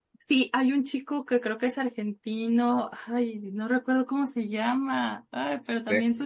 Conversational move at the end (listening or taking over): listening